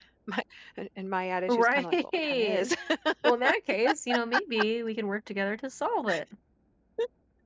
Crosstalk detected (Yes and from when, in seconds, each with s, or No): Yes, from 1.5 s